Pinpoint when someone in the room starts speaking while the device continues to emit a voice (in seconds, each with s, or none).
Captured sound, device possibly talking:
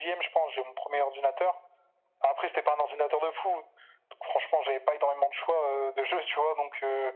none